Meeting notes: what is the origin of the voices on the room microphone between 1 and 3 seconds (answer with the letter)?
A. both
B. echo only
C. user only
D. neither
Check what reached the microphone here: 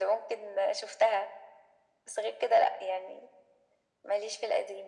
B